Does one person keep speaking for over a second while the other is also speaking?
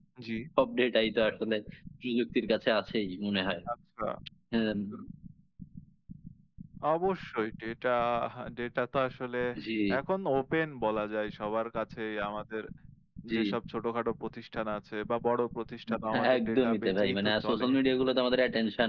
Yes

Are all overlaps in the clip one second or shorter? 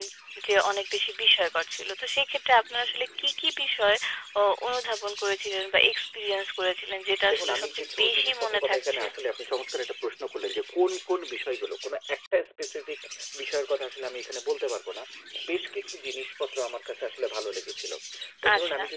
No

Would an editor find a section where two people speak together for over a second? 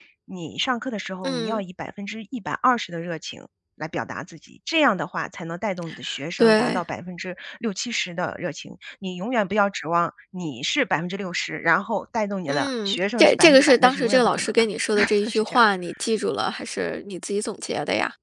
Yes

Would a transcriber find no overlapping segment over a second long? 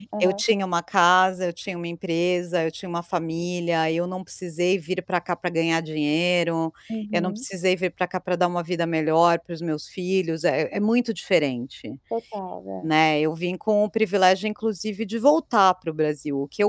Yes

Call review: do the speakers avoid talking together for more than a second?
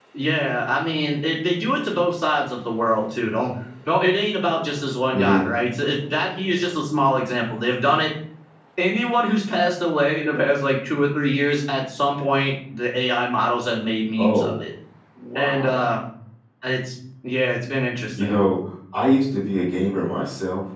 Yes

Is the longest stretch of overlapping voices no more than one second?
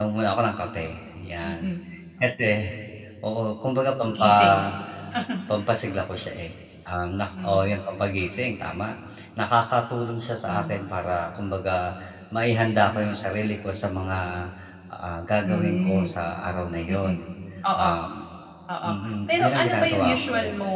No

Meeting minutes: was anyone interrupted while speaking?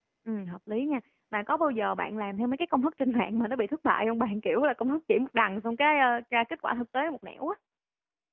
No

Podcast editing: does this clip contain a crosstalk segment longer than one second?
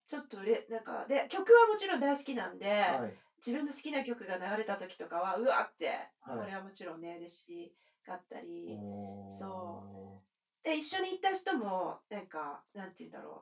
No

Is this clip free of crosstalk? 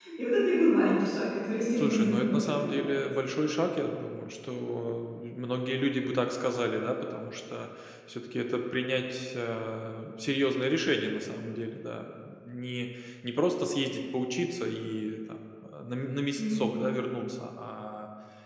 No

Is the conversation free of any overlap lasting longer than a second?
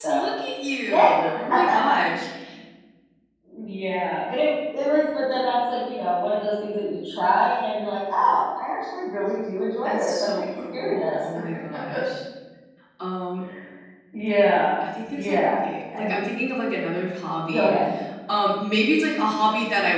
No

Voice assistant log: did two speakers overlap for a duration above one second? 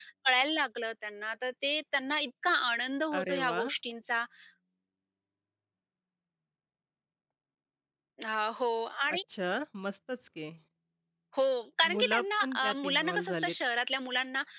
Yes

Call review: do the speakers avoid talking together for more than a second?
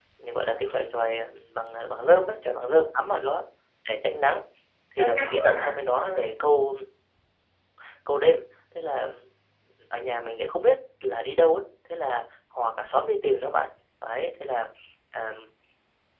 No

